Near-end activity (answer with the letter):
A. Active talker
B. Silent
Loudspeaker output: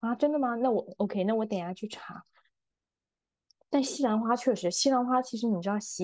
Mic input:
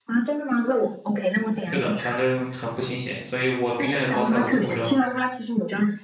A